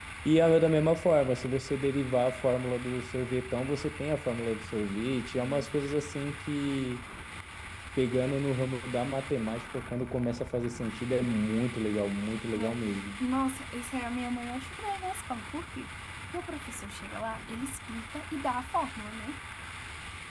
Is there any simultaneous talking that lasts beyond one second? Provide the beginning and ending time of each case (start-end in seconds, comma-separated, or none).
none